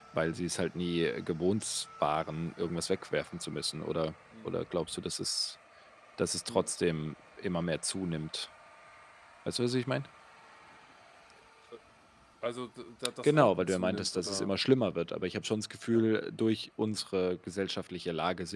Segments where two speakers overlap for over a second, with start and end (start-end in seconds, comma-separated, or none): 13.2-14.5